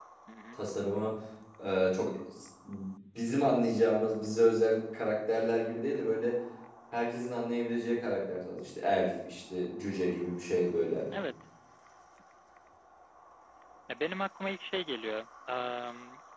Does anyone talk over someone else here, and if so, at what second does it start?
none

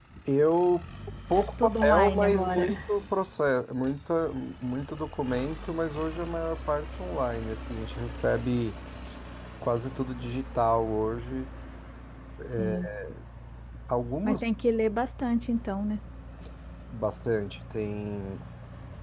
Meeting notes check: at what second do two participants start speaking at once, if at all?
1 s

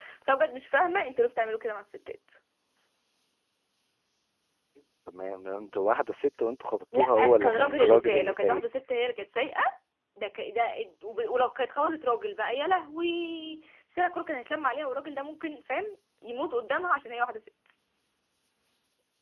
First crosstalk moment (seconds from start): 7 s

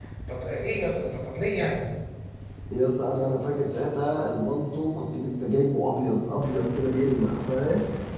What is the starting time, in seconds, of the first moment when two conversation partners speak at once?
none

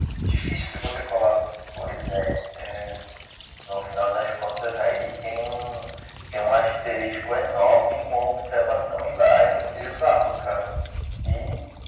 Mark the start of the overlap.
none

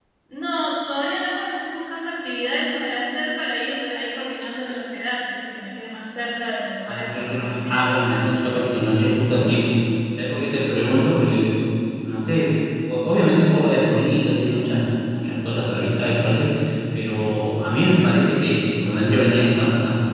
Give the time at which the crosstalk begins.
7 s

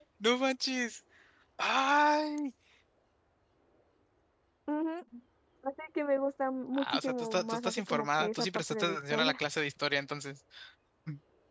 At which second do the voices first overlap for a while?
7 s

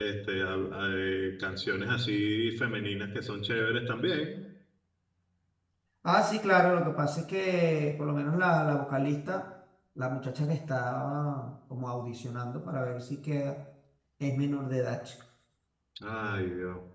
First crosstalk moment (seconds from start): none

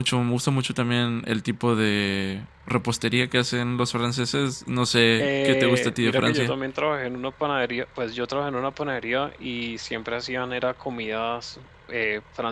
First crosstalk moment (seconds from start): 5 s

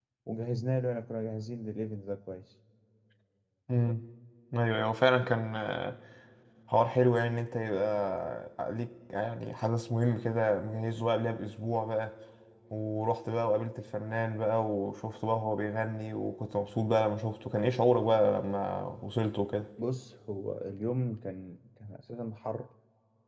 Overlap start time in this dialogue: none

